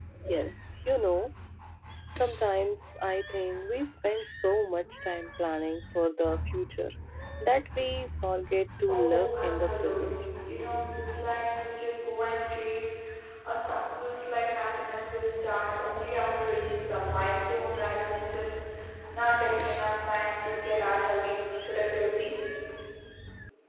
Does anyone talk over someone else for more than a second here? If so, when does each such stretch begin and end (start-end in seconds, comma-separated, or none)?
8.9-10.2